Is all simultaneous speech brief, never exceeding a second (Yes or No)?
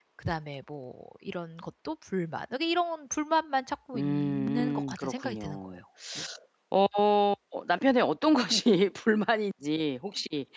No